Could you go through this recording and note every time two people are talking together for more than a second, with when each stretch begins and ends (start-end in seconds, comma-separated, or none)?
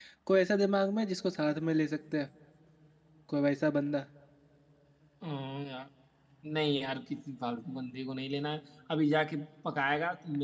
none